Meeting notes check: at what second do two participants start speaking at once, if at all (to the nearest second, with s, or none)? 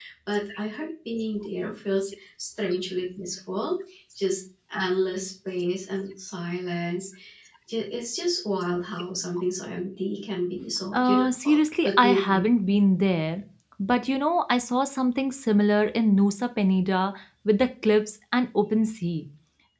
11 s